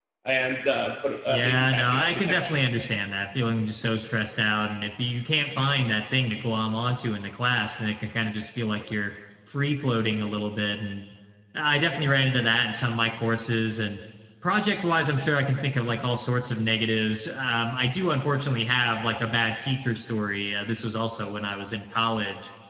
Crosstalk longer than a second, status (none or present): present